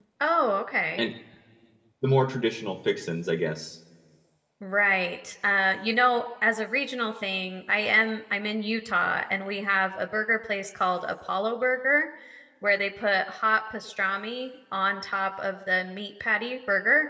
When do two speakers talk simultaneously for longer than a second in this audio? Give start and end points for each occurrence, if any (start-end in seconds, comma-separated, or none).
none